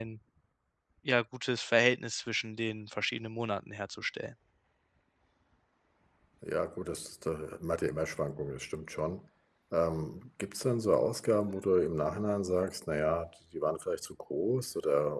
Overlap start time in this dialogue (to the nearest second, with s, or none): none